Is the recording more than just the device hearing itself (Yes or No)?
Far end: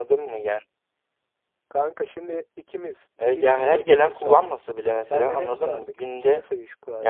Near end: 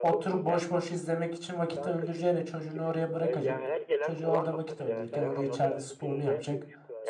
Yes